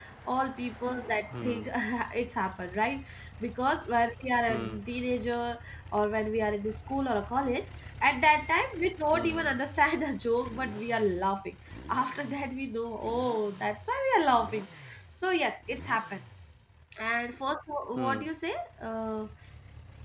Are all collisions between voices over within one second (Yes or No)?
Yes